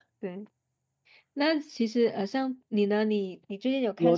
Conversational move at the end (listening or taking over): taking over